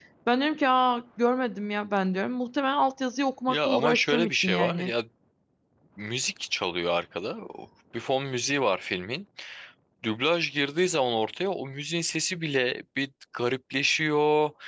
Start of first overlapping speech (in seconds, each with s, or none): 3.5 s